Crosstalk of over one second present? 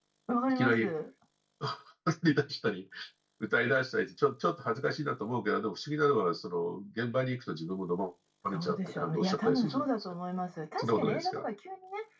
Yes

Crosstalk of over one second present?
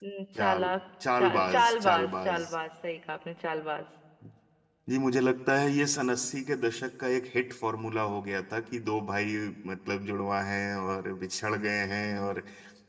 Yes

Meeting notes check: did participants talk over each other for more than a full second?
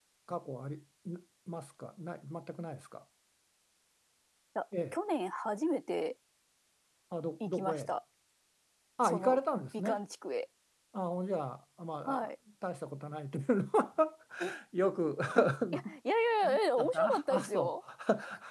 Yes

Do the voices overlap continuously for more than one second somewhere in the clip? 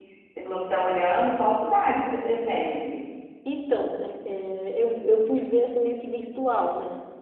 No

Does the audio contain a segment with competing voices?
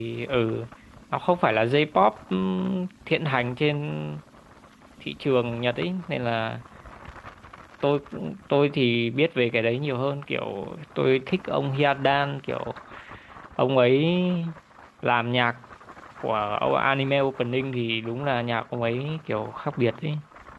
No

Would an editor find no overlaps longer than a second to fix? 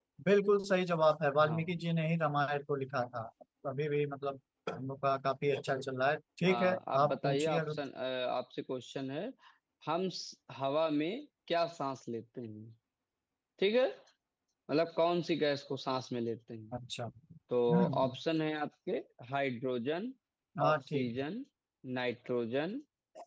No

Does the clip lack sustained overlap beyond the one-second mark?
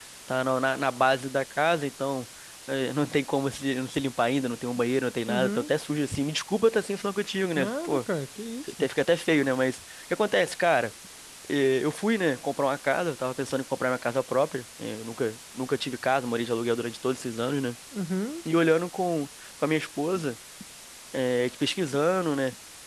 Yes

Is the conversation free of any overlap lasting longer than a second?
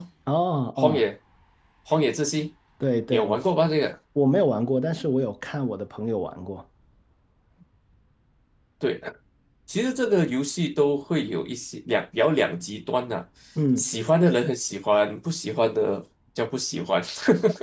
Yes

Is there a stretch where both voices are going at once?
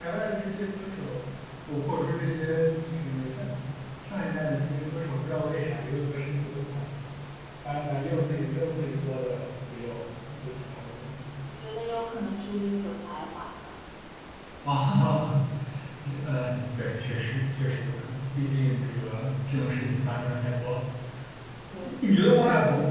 No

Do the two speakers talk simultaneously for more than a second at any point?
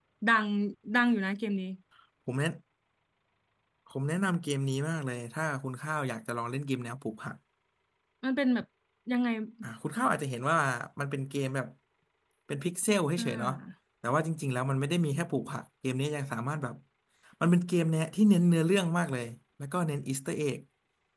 No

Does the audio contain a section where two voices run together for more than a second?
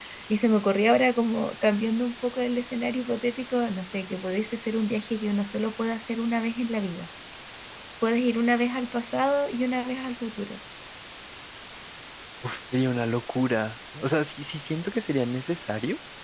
No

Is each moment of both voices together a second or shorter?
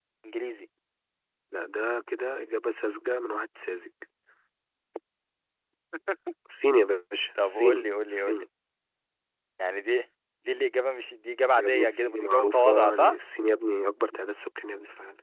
No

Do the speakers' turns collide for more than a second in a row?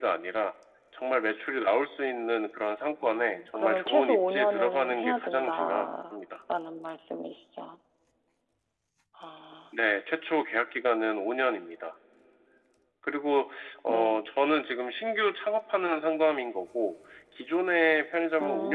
Yes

